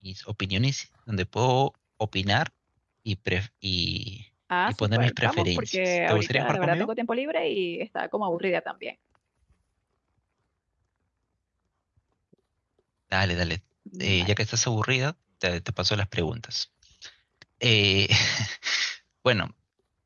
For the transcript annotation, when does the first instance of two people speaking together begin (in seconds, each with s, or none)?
4.7 s